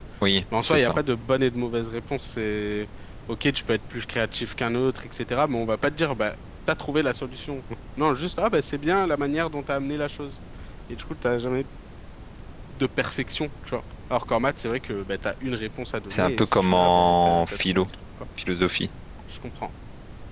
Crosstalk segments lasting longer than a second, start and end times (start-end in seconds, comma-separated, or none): 16.1-17.9